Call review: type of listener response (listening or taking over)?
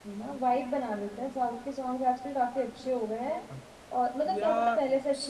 listening